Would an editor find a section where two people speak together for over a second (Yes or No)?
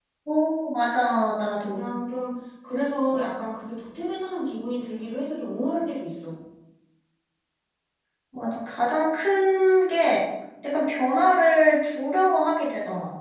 No